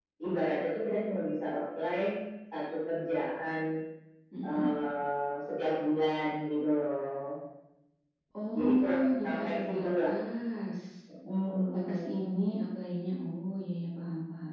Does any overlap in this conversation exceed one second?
Yes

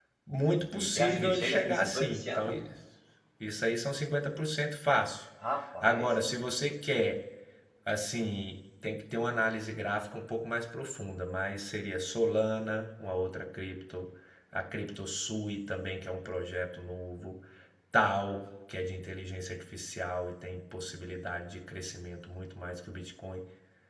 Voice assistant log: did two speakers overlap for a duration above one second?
Yes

